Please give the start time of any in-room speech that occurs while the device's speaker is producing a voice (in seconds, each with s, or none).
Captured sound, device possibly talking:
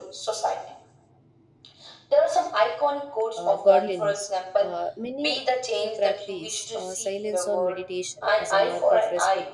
3.4 s